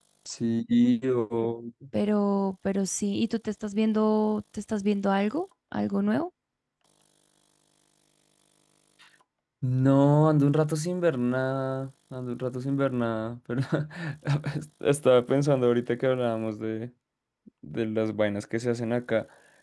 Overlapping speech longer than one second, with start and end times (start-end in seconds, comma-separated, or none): none